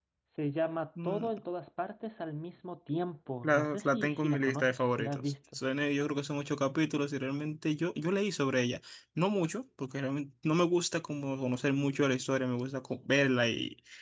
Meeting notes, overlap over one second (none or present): present